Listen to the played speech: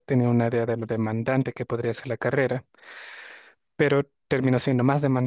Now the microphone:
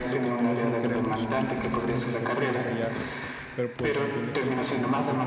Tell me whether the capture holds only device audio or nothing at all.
No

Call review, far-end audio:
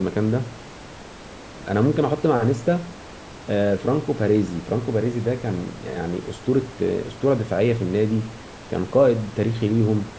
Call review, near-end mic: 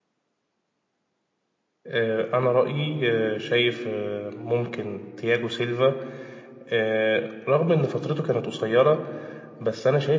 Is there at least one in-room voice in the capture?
Yes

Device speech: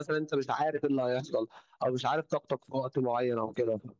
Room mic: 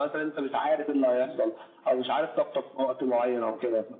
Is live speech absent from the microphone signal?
Yes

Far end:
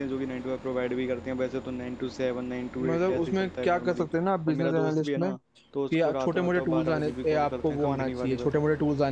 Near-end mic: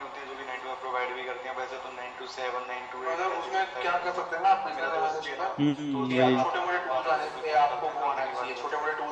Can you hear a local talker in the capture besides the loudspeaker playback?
Yes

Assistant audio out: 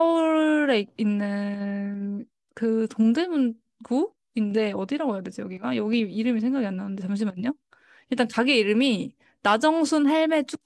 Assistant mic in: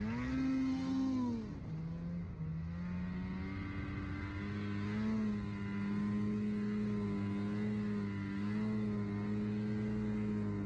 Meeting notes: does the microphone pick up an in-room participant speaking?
No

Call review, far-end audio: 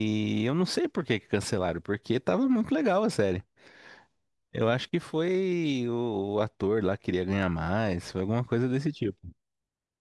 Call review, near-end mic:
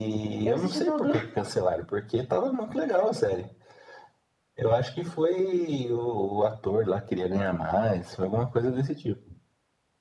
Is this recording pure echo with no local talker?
No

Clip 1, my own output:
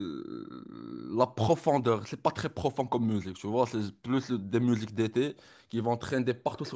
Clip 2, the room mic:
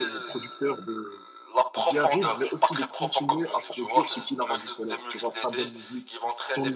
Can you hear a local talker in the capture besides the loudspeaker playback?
Yes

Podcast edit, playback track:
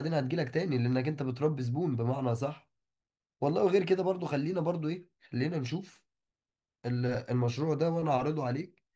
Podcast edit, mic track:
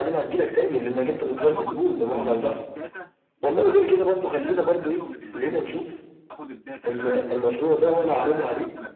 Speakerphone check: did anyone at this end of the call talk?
Yes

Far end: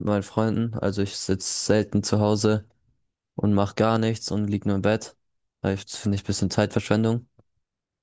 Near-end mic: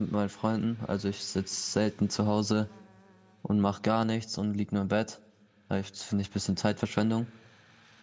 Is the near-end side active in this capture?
No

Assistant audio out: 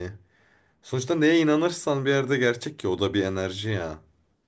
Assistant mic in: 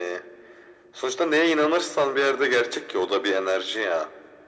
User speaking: No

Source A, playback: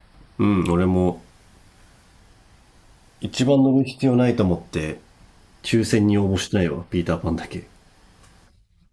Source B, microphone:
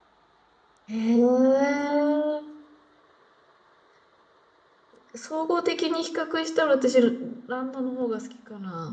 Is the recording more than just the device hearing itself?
Yes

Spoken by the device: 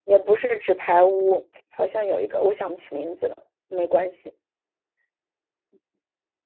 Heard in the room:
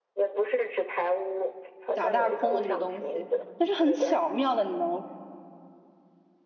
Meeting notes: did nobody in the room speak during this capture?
No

